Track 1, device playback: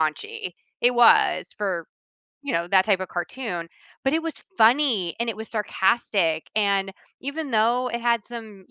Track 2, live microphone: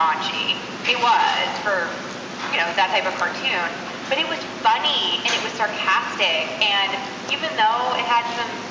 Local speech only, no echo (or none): none